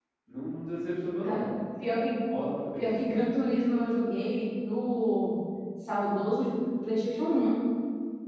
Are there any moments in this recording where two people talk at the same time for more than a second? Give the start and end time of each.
none

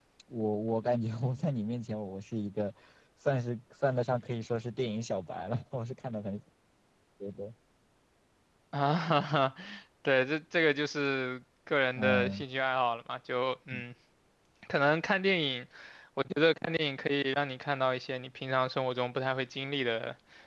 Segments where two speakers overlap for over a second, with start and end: none

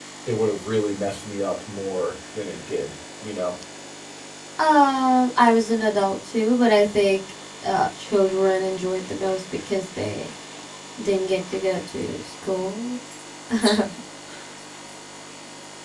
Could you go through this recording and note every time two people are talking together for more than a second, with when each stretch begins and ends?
none

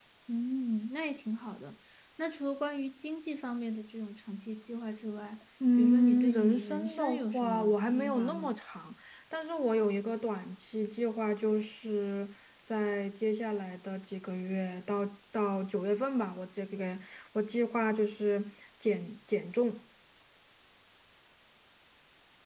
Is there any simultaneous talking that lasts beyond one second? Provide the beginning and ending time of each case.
5.8-8.6

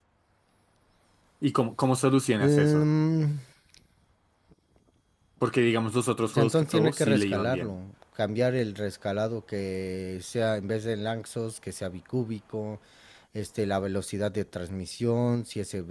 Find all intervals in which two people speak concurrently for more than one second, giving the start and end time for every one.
6.4-7.8

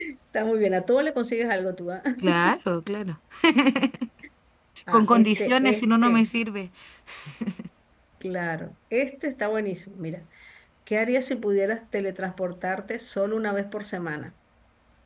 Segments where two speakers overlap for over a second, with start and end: 4.9-6.2

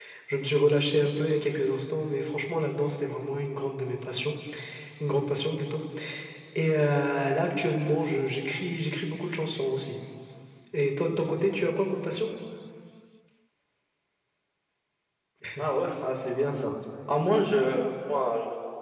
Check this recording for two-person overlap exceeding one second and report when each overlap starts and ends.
none

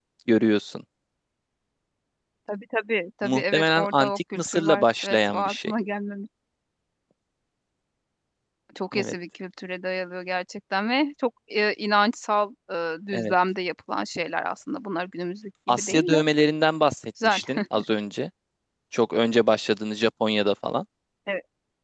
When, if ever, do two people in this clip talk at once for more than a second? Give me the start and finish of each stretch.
3.2-5.7

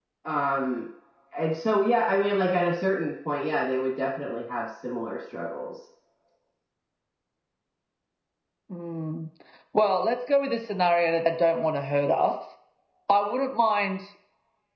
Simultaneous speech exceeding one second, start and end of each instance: none

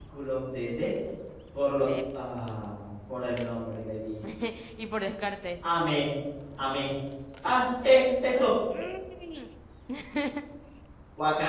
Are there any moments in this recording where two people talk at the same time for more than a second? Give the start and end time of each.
none

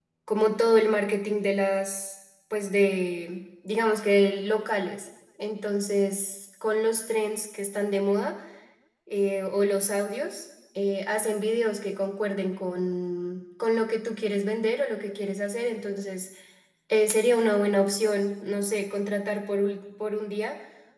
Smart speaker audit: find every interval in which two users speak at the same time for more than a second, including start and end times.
none

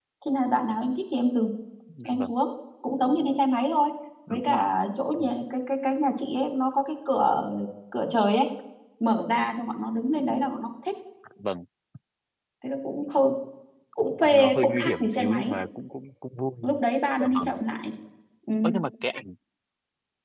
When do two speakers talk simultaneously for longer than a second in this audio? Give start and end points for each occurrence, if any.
14.2-15.5

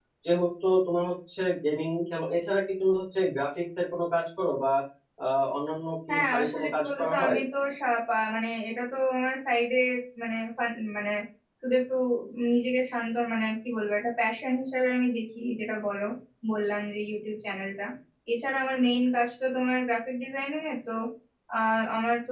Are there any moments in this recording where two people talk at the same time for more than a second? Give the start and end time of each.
6.1-7.3

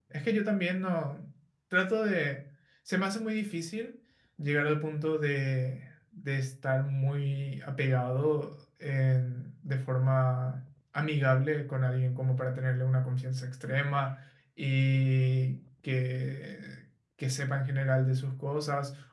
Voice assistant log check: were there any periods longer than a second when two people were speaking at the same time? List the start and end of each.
none

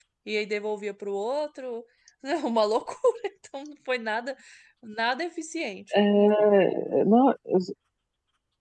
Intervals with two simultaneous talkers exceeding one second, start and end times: none

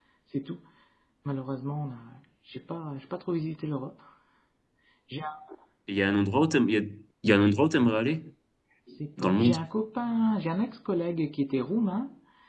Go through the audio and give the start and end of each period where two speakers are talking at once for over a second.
none

